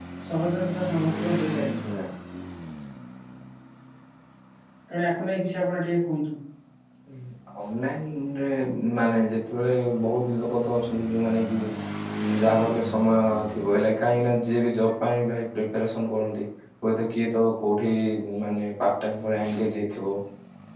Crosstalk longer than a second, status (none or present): none